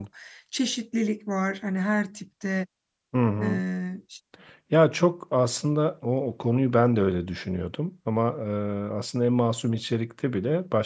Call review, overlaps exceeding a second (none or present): none